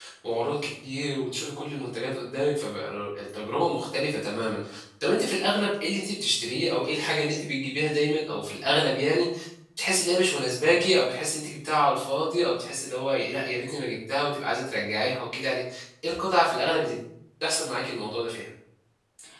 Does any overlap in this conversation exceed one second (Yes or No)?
No